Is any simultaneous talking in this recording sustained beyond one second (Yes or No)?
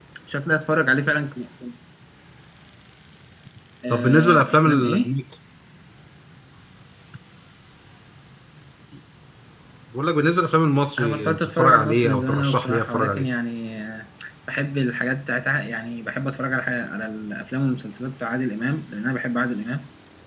Yes